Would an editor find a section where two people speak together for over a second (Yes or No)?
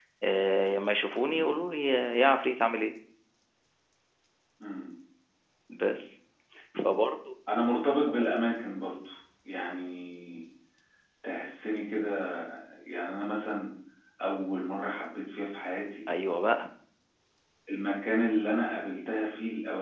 No